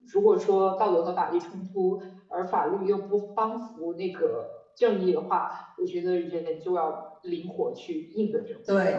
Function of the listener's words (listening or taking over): taking over